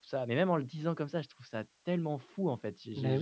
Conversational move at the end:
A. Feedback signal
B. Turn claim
A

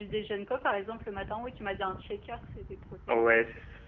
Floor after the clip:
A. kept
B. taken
B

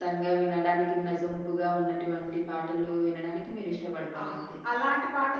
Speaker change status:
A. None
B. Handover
B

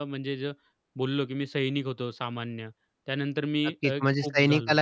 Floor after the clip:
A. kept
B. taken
B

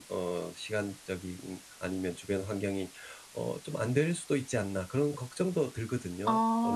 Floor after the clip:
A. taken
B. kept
A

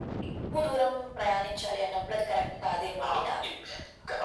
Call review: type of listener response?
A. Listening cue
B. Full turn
B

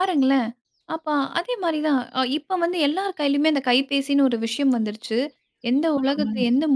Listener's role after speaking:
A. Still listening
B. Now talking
A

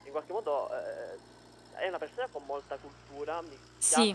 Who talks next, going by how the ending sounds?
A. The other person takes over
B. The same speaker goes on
B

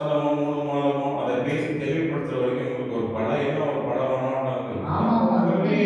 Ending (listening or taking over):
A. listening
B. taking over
B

